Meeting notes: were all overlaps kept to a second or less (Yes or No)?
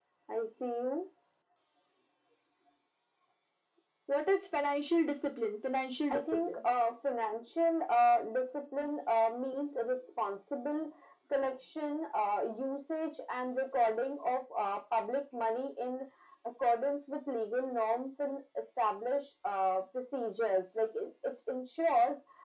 Yes